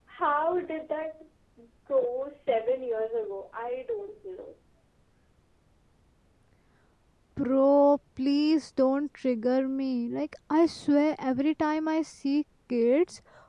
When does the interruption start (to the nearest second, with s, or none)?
none